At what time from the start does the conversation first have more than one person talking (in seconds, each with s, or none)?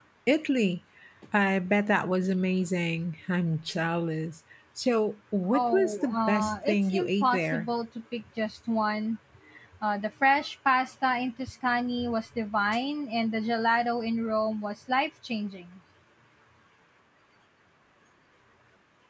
5.5 s